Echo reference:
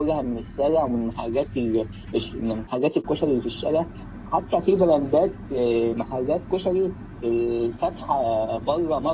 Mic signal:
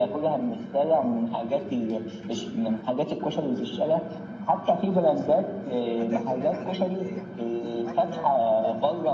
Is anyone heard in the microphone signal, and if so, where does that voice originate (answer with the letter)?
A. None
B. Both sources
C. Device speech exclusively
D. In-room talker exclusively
B